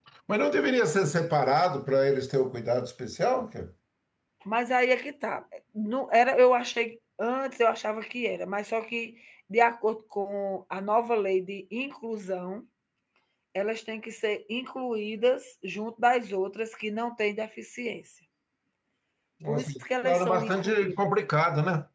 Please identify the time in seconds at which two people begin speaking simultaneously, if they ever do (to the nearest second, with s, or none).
19 s